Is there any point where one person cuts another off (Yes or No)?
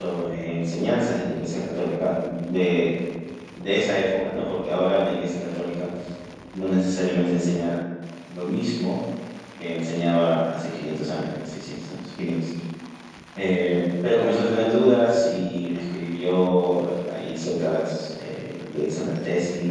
No